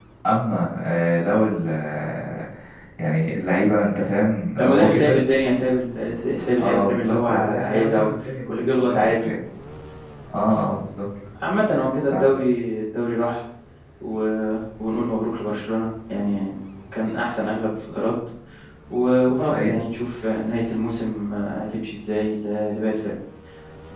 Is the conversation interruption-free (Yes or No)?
No